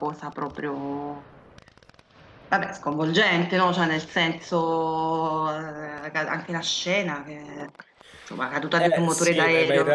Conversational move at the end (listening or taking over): taking over